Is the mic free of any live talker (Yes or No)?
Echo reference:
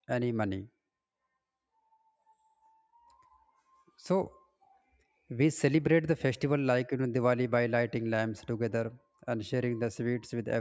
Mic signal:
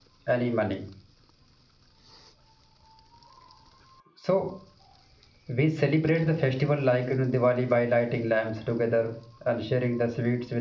Yes